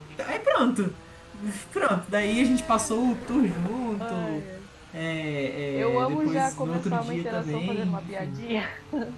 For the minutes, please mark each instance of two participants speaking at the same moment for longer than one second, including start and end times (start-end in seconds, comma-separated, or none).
5.8-8.4